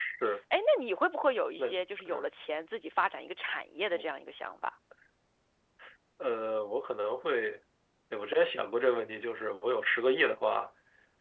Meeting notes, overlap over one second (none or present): none